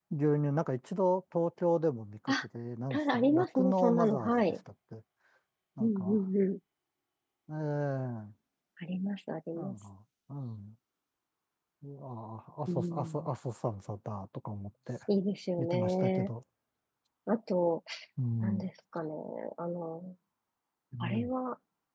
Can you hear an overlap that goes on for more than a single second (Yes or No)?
Yes